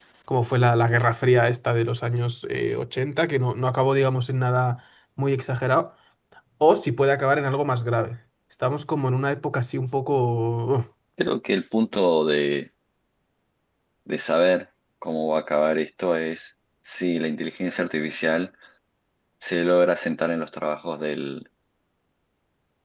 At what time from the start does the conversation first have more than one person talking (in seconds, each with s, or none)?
none